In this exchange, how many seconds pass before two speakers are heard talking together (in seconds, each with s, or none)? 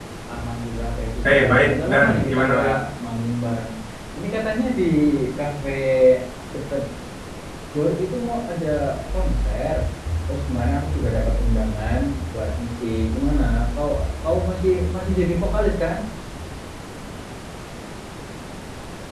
1.2 s